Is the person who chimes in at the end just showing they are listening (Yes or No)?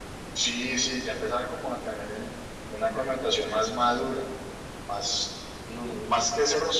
Yes